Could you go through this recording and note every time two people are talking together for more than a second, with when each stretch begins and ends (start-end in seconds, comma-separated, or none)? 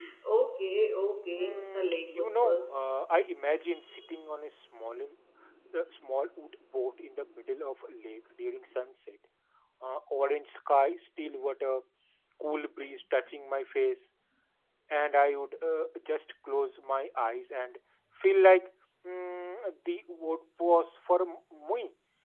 1.4-2.8